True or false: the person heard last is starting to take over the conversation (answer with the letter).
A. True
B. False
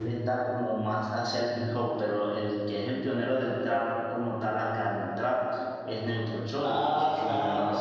A